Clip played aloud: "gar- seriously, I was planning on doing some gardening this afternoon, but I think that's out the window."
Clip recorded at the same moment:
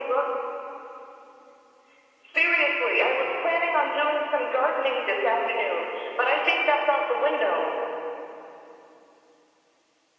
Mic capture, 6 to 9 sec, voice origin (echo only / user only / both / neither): echo only